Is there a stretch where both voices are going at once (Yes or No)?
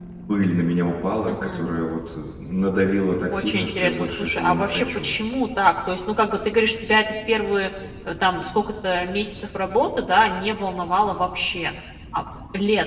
Yes